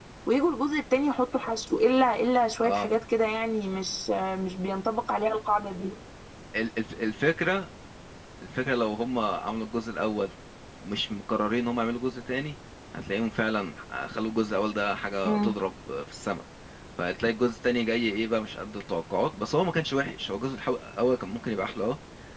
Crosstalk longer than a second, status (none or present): none